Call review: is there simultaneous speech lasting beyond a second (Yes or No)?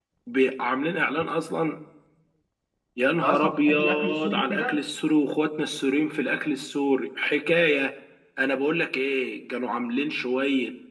Yes